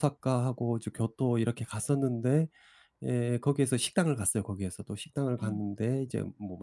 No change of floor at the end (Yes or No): Yes